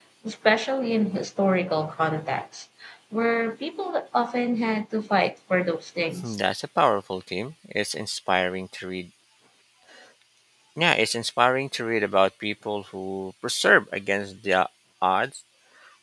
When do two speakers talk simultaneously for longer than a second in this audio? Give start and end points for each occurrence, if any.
none

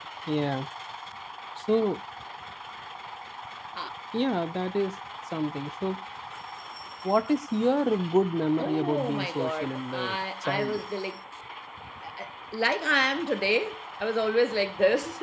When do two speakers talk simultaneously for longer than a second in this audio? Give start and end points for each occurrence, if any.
8.6-10.8

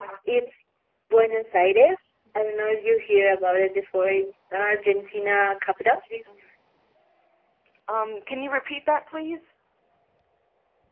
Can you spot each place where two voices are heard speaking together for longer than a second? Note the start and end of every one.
none

